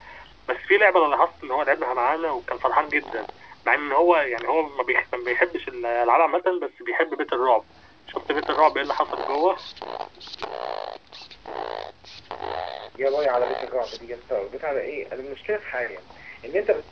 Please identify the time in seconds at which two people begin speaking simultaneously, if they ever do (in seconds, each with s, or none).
none